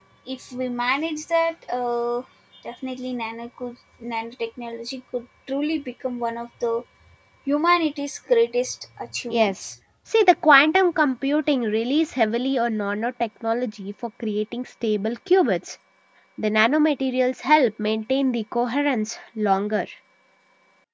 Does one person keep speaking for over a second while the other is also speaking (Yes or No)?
No